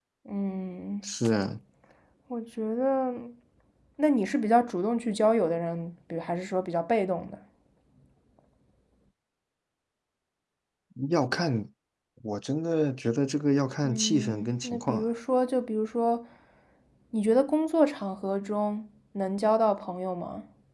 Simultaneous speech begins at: 13.8 s

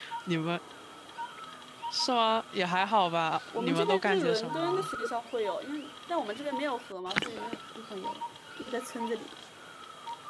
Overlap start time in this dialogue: 3.5 s

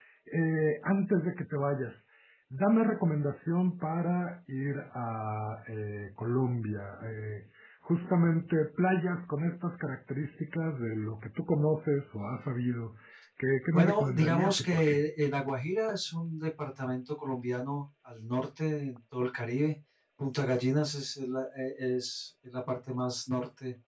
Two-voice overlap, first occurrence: 13.7 s

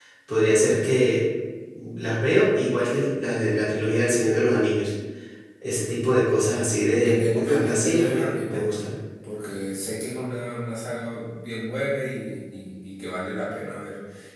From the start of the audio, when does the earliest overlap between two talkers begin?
7.0 s

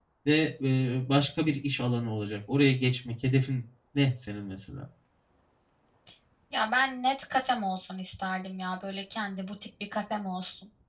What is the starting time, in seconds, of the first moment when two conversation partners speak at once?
none

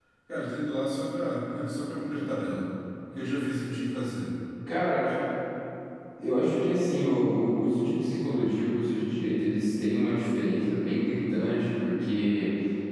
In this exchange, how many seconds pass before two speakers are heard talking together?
none

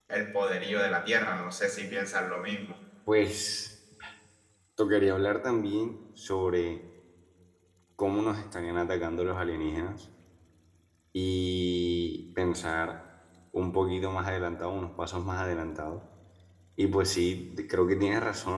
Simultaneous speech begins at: none

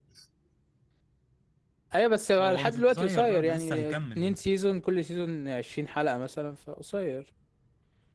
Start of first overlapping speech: 2.4 s

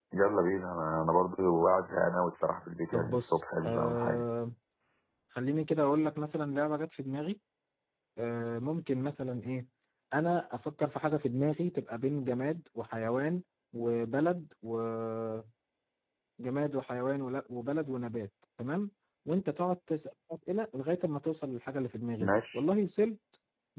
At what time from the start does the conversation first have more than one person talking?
2.9 s

